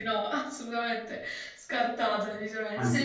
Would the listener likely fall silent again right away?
No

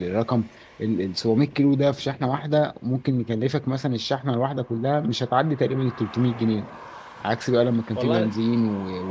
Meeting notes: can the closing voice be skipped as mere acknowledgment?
Yes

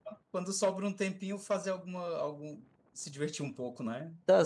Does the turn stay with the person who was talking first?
No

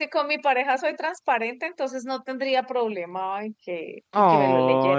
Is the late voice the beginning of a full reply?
Yes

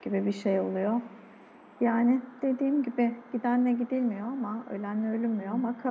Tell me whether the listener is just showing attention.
Yes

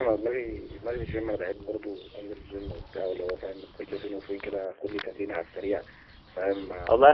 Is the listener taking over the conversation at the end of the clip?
Yes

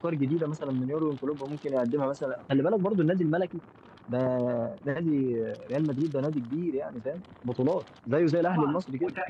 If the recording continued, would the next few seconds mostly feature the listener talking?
Yes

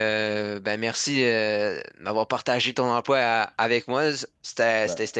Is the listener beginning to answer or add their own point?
No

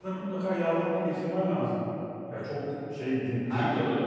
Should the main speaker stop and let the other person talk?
No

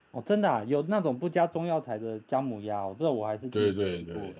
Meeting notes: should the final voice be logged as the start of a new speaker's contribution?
Yes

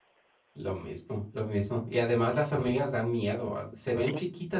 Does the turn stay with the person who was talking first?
Yes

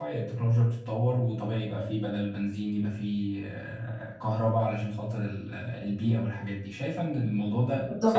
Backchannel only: No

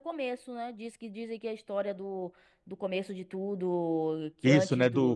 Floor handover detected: Yes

